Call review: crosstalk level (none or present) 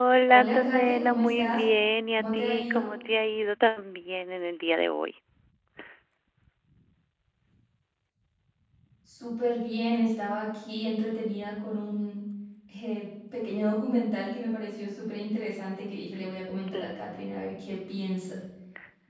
present